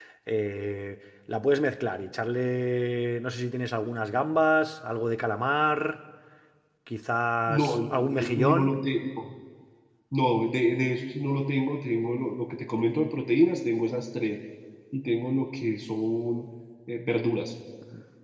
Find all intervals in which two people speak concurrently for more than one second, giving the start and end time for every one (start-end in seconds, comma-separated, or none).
7.5-8.7